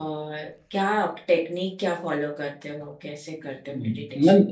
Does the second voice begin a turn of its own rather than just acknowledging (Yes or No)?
Yes